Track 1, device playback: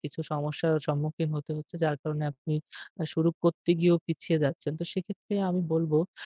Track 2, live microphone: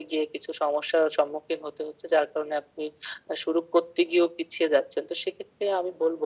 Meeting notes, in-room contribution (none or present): none